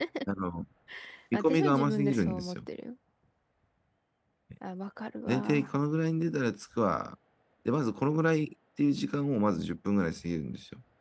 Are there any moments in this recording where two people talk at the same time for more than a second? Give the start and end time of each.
1.3-2.6

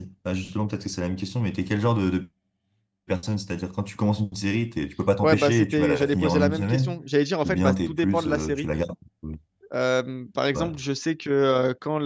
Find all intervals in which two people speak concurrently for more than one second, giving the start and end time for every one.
5.2-7.0, 7.4-8.7

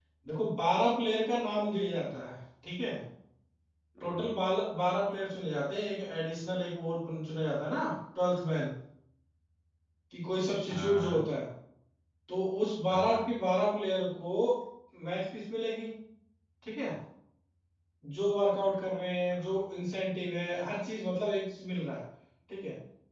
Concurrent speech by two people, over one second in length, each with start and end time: none

